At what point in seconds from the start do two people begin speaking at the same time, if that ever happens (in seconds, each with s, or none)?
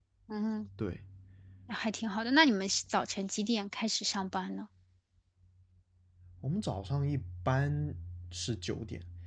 none